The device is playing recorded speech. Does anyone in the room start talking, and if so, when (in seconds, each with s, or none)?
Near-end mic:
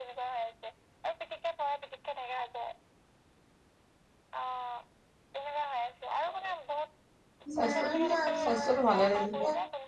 7.5 s